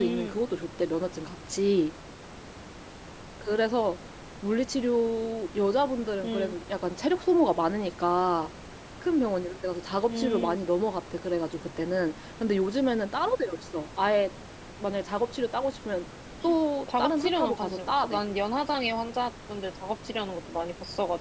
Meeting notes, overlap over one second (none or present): present